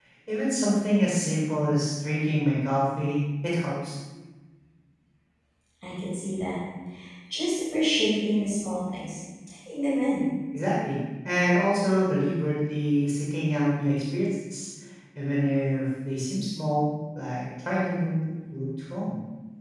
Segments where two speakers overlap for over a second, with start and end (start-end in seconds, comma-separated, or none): none